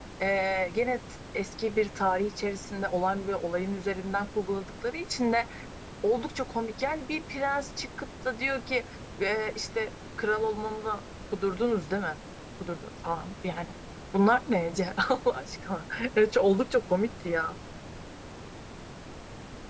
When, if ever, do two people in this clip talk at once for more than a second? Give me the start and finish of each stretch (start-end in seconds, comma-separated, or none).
none